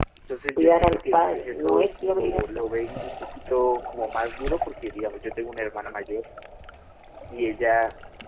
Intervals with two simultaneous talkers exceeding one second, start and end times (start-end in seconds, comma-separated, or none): 0.6-2.7